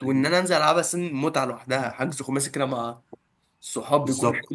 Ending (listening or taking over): taking over